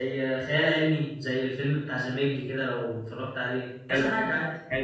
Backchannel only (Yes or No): No